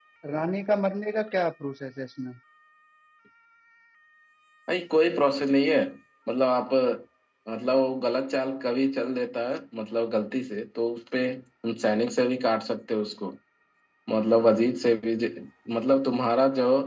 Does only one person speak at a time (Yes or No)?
Yes